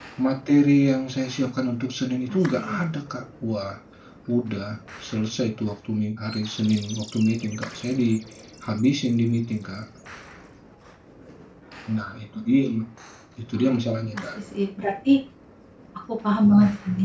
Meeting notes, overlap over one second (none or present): none